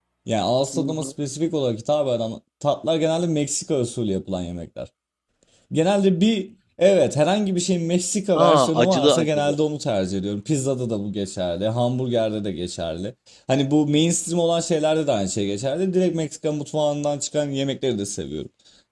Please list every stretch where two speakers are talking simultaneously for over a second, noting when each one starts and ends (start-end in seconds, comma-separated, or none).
8.3-9.6